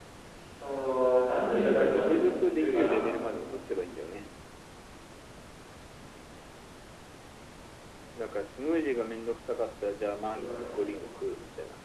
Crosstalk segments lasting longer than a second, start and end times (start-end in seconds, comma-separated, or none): 1.6-3.1